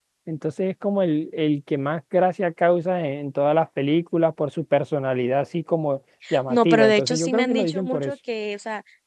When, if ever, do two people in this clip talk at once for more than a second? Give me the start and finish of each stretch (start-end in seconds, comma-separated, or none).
6.5-8.1